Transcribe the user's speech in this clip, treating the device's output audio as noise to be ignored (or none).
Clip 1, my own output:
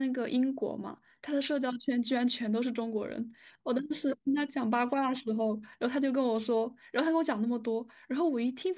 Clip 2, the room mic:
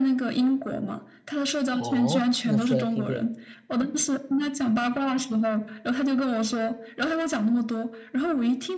哦，那说来听听。